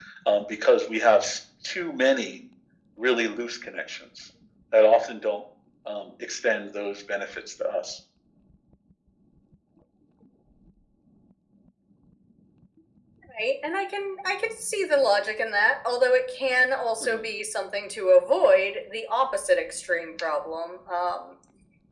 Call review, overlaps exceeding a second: none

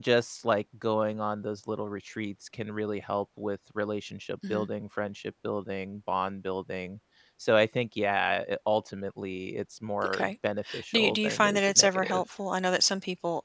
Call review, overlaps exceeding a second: present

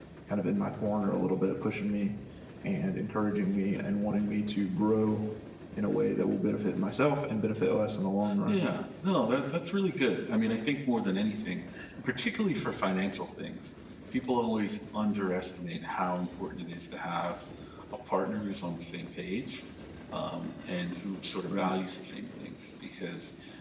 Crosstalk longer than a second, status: none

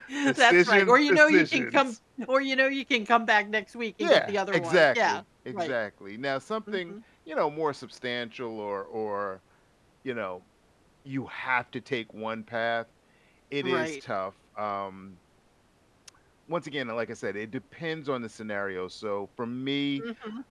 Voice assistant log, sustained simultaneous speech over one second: present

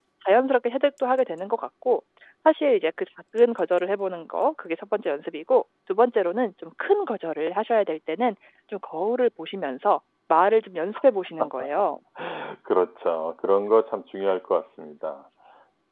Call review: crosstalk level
none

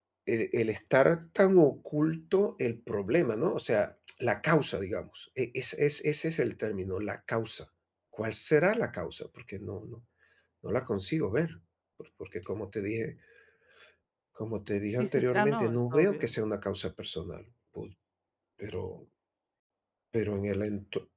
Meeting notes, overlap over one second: present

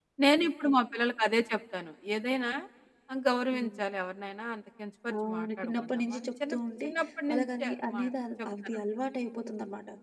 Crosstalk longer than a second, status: present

